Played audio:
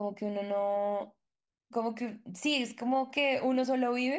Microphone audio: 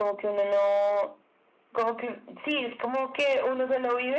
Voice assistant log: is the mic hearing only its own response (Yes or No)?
Yes